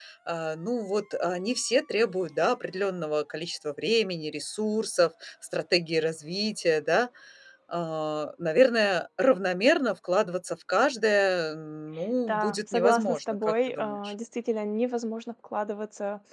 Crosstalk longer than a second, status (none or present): present